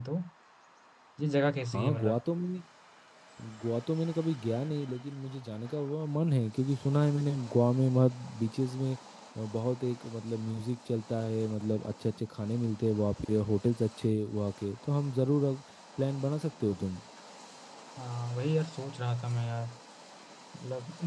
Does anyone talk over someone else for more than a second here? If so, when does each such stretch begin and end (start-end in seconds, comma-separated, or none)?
none